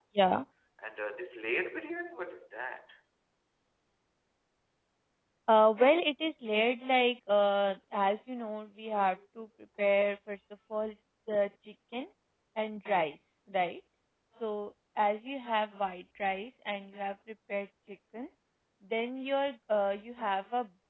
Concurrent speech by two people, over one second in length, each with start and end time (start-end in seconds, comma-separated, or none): none